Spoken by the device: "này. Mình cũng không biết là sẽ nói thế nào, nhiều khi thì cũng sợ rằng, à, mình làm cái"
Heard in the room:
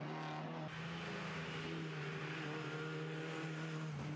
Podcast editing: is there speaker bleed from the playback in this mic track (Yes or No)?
No